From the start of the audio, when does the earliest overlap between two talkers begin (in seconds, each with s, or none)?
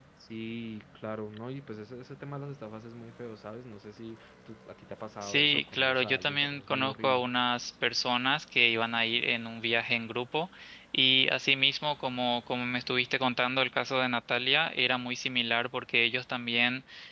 5.2 s